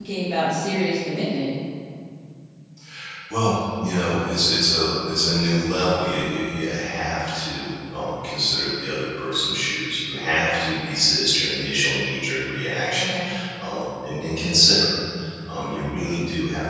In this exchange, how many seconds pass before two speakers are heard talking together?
none

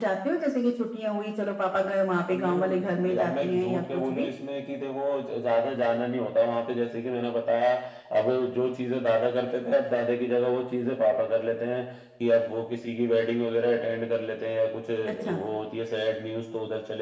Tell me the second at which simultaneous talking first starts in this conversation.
2.3 s

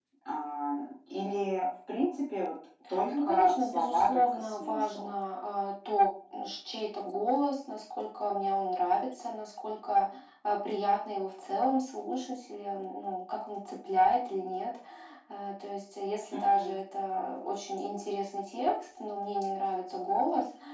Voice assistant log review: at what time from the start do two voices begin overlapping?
3.1 s

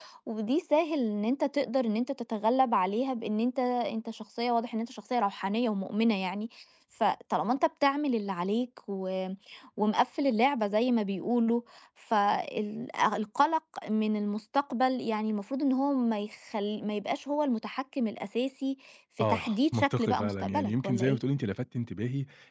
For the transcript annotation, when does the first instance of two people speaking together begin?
19.2 s

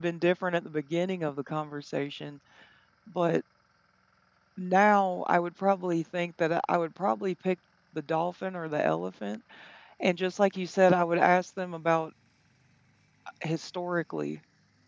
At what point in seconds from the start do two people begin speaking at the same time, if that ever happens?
none

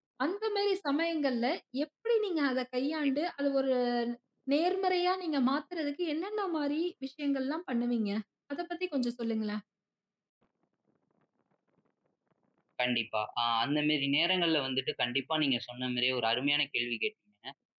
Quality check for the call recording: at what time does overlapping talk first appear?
none

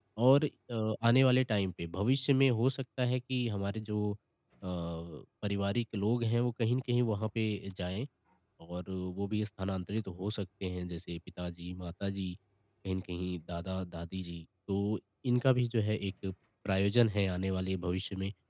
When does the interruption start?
none

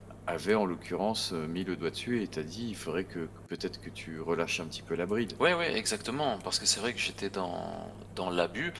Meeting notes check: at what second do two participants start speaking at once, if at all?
none

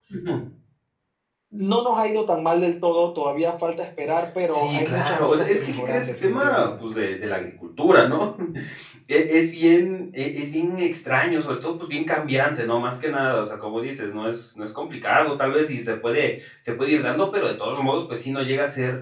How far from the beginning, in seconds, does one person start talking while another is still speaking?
4.5 s

